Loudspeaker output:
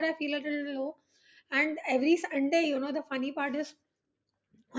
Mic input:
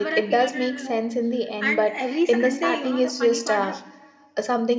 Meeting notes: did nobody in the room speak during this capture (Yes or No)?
No